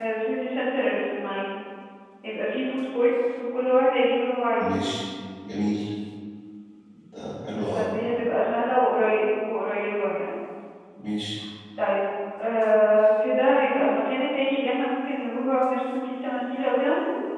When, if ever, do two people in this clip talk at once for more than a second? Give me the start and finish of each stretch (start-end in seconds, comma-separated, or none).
none